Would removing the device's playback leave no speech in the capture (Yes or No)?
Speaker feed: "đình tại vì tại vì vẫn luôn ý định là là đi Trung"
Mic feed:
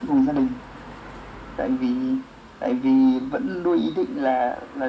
Yes